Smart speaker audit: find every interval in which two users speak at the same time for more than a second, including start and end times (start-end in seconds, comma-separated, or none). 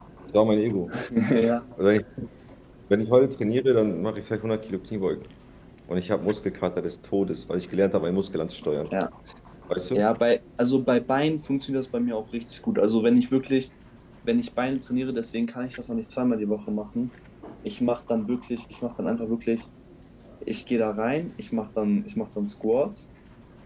none